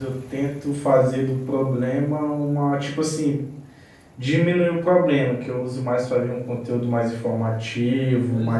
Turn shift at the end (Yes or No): Yes